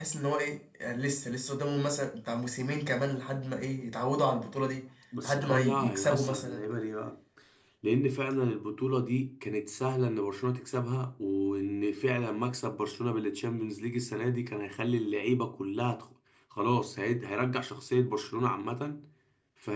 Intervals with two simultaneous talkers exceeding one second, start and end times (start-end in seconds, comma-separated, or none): 5.2-6.6